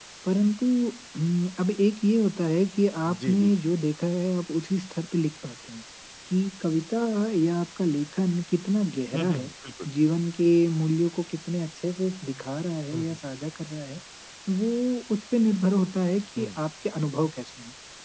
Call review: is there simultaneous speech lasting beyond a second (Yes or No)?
No